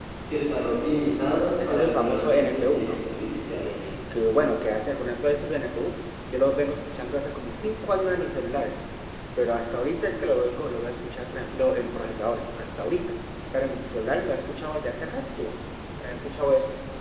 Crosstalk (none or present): present